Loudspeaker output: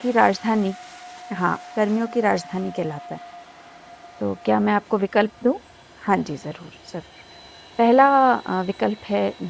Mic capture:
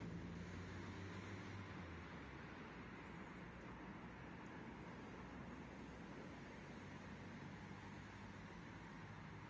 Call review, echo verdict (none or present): none